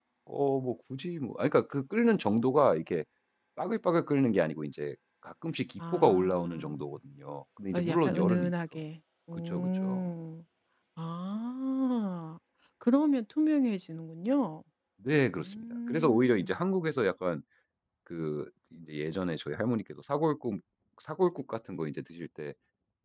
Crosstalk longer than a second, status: present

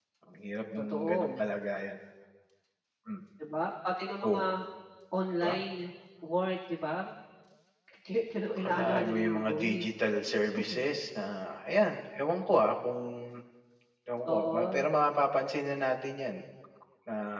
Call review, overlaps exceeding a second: present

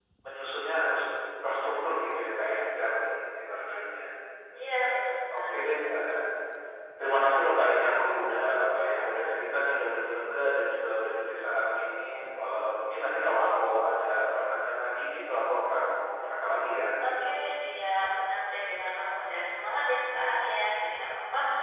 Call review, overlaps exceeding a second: none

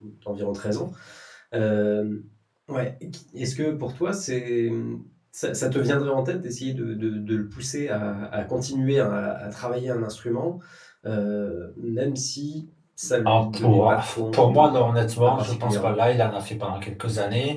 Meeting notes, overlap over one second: present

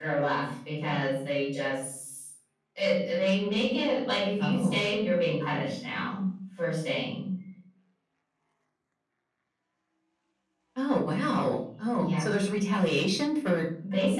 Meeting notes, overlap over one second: none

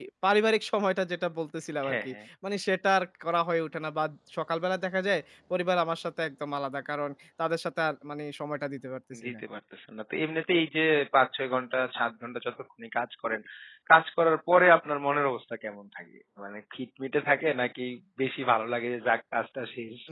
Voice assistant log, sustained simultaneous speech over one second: none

